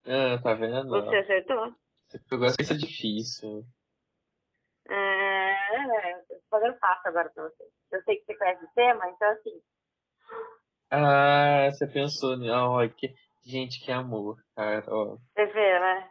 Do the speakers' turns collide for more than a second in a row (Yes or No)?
No